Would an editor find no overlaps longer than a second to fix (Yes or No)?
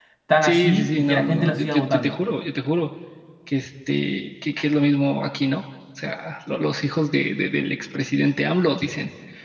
No